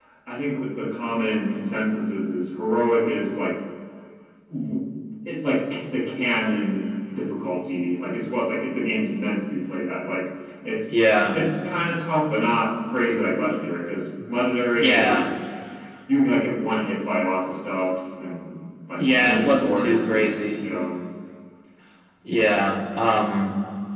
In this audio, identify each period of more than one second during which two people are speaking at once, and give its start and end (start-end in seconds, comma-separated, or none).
19.0-20.6